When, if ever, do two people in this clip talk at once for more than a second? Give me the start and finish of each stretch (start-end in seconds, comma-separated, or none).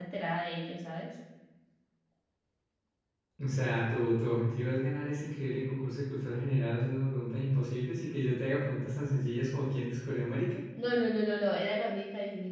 none